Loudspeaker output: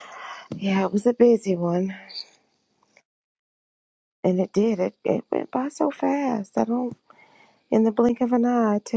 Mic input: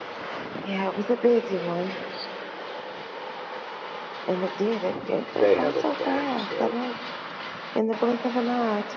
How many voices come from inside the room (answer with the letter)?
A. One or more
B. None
A